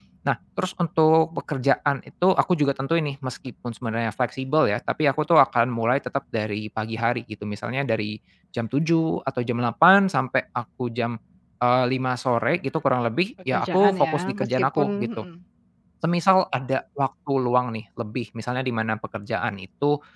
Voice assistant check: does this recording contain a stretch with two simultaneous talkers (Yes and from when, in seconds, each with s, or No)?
Yes, from 13.5 s